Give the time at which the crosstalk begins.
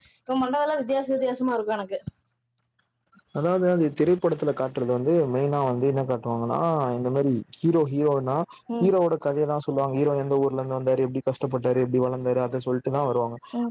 none

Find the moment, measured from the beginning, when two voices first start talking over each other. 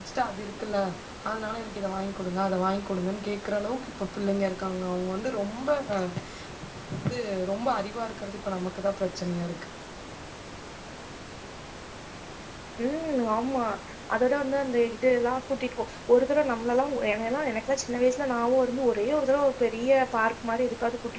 none

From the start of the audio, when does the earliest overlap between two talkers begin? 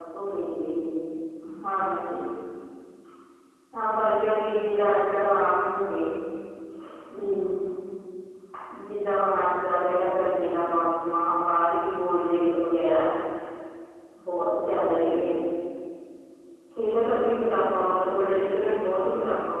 none

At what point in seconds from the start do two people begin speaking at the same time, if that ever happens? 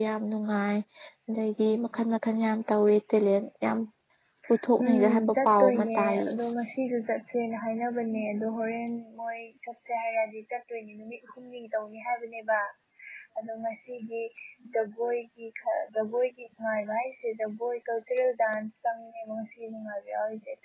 4.8 s

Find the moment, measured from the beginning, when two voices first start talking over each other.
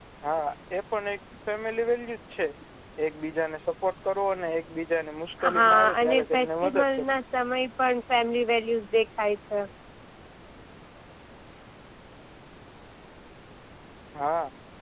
5.4 s

